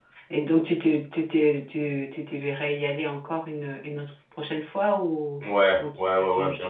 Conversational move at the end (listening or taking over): taking over